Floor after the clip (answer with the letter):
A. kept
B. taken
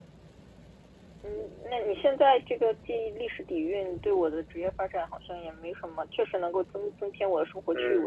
B